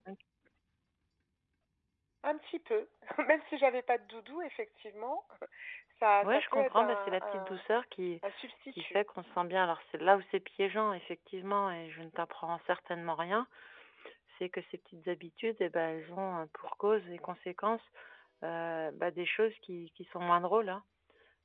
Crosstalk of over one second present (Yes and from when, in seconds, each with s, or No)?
Yes, from 6.2 s